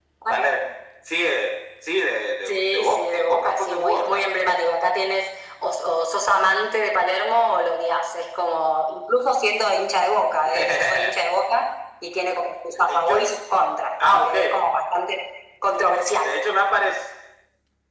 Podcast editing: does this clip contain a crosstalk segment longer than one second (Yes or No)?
Yes